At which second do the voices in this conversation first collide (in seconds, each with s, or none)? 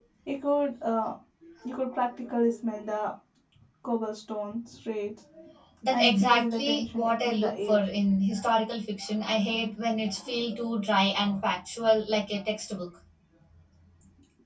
5.9 s